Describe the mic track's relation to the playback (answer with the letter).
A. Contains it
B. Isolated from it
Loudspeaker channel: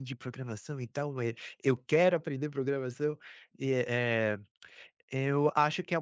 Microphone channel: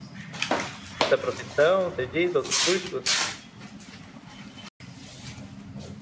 B